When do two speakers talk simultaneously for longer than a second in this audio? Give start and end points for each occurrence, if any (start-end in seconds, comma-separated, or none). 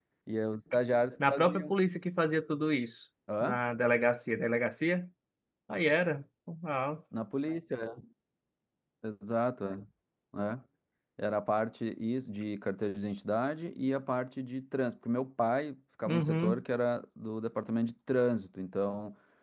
none